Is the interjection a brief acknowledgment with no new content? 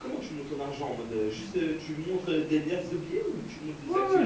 No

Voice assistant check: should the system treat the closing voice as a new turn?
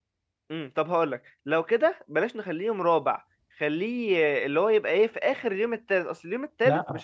Yes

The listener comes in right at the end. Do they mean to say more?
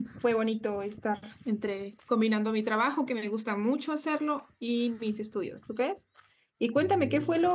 No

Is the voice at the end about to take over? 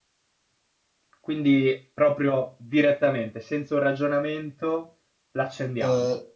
Yes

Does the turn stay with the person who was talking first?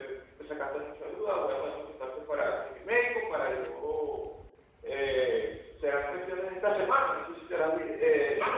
No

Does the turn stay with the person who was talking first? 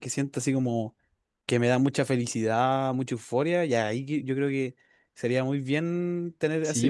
No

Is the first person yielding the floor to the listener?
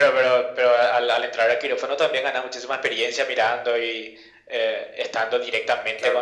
Yes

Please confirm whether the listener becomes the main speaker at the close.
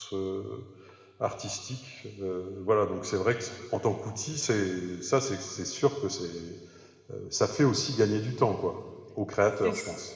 Yes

